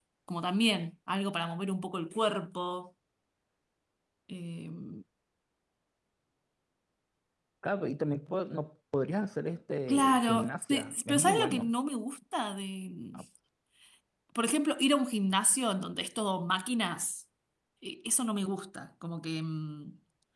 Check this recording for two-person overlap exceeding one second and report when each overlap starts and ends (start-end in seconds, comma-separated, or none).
9.9-11.7